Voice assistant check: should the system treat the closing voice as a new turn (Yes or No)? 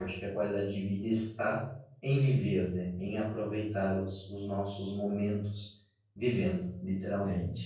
Yes